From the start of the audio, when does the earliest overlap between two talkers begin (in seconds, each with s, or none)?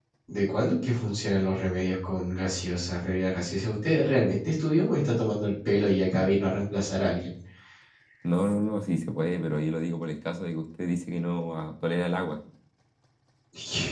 none